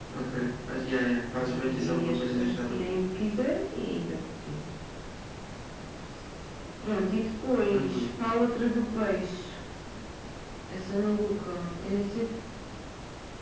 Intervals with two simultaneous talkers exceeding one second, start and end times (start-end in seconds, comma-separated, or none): 1.4-3.0